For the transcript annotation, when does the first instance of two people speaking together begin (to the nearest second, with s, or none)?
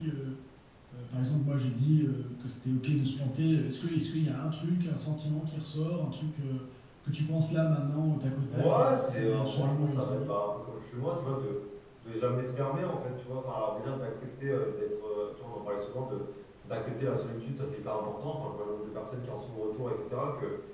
8 s